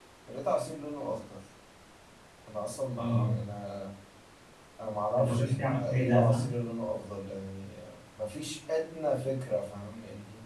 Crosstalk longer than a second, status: present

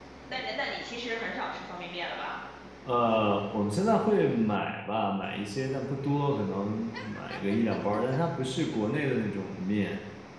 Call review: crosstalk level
none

